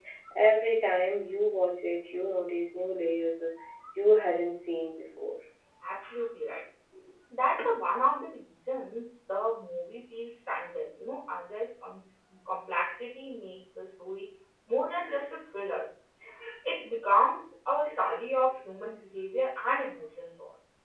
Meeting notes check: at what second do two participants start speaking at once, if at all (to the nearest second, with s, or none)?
none